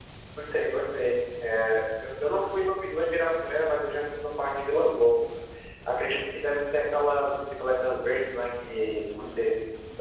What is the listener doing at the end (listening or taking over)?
listening